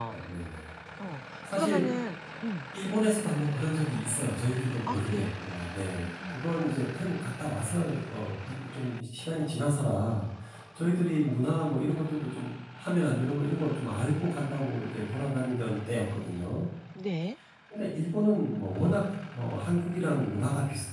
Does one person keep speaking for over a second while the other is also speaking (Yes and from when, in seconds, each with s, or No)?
No